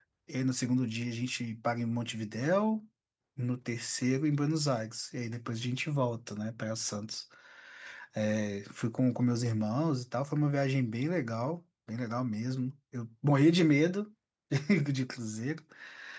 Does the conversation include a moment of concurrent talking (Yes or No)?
No